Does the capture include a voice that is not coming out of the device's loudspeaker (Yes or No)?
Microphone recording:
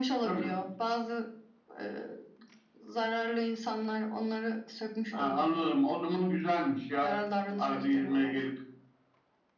No